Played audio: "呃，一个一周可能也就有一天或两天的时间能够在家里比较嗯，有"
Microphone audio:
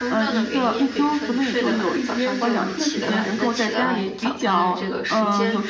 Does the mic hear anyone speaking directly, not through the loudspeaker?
Yes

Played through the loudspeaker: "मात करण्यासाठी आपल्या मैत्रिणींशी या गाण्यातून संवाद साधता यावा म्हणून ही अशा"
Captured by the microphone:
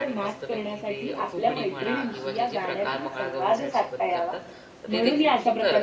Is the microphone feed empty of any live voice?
No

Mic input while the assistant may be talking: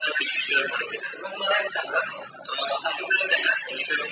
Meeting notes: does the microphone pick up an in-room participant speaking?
No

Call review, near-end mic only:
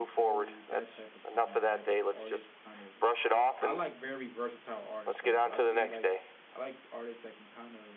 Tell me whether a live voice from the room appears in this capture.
Yes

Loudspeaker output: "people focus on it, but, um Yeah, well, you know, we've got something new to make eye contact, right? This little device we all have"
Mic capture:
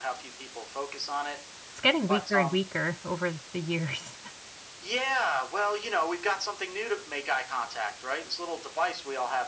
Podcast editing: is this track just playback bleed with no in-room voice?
No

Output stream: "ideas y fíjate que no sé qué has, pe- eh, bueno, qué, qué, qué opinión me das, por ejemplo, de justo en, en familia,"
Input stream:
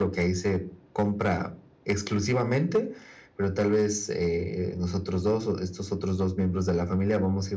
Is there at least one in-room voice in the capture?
Yes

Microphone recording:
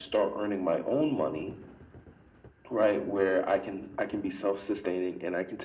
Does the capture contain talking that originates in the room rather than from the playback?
No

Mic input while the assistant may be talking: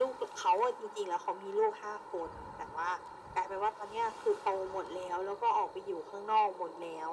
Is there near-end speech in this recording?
No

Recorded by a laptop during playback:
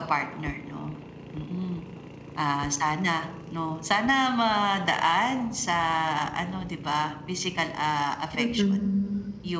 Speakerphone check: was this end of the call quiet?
No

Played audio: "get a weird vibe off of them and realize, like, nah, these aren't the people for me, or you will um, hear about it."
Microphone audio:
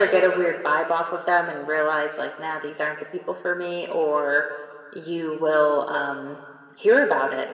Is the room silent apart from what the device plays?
Yes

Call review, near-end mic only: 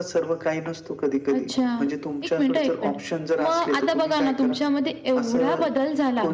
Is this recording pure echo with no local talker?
Yes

